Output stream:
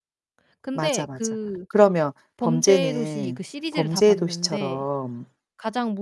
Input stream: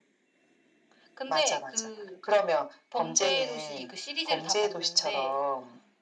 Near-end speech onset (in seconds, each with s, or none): none